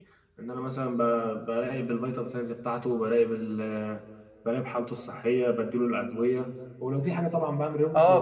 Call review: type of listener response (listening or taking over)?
taking over